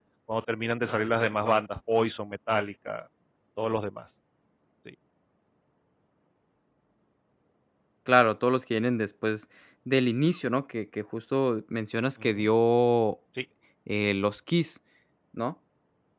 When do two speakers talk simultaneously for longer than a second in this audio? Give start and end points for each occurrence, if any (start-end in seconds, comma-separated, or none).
none